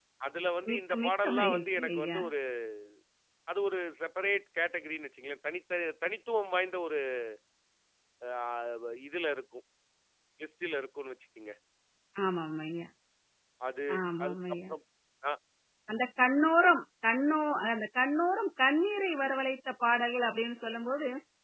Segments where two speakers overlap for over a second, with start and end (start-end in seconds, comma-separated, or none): 0.7-2.2